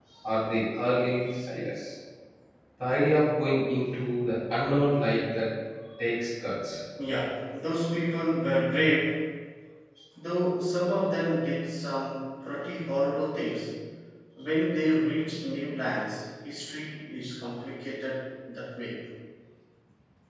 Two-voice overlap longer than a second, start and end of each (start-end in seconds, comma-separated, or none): none